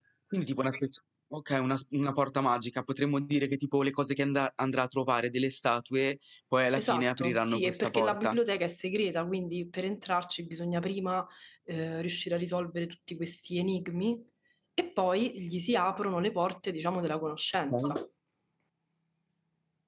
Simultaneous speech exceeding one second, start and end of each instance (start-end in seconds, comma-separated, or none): 6.7-8.3